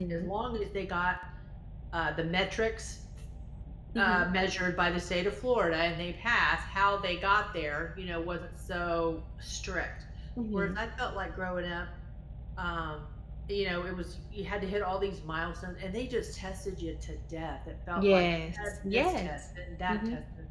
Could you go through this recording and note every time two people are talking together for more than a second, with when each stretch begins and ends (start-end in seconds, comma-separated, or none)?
18.0-19.3